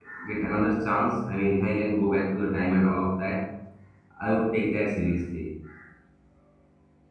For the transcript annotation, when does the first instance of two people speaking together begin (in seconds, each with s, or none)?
none